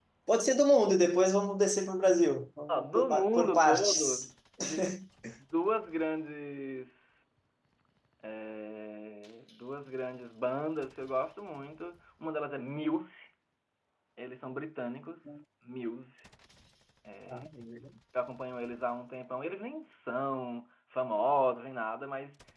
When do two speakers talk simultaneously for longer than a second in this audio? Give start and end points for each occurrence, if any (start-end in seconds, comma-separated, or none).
2.7-4.3